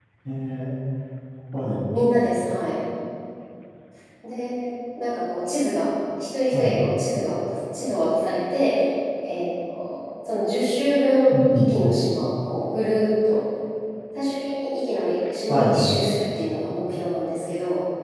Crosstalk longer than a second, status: none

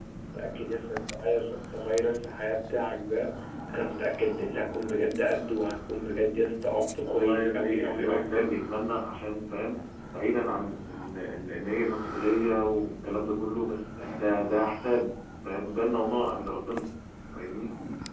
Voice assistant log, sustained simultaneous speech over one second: present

